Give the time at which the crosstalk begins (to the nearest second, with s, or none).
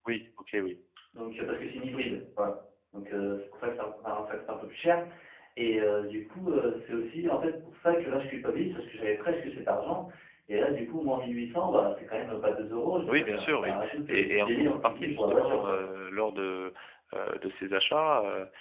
13 s